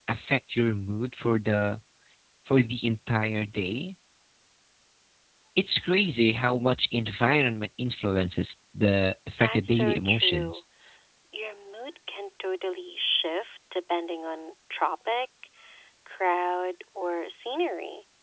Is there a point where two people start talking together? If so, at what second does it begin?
9.4 s

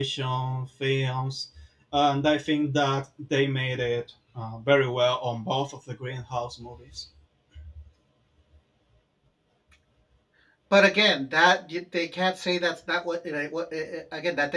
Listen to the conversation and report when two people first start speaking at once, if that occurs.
none

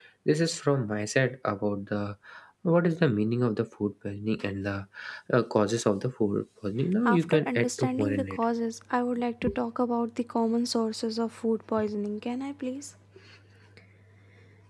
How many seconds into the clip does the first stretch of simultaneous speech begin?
7.0 s

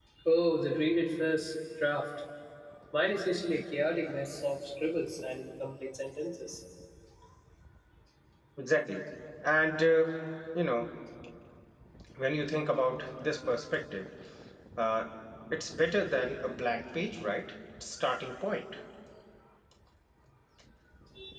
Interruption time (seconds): none

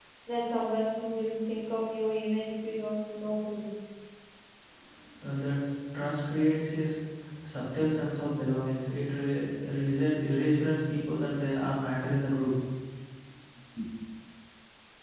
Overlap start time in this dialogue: none

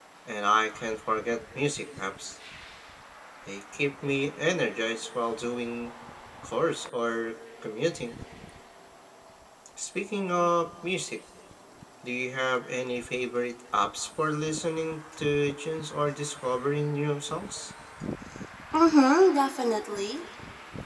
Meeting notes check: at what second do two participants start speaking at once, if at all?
none

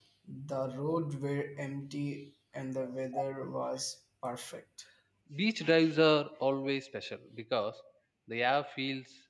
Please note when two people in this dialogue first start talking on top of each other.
none

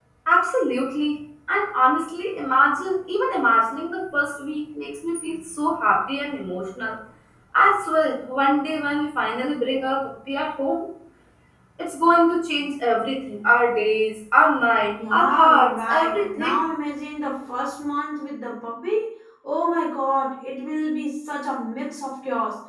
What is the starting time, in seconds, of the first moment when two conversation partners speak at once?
15.0 s

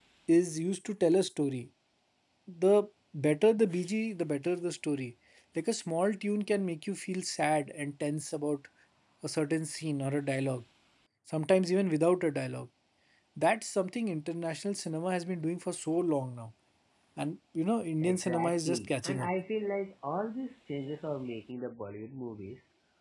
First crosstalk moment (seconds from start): 18.0 s

